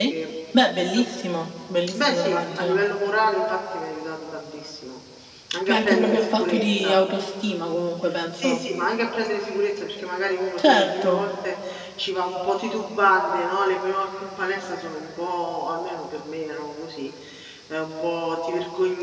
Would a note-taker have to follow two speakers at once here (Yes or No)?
Yes